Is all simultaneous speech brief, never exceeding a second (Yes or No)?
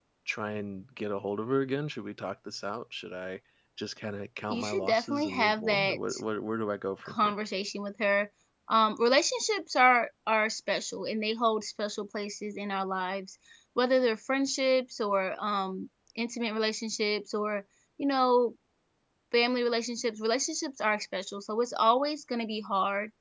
No